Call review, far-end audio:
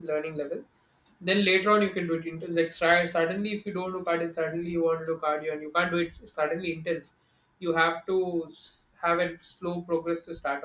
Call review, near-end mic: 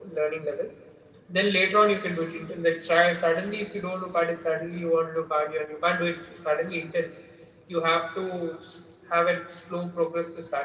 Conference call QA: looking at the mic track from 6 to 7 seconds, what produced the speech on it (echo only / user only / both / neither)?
echo only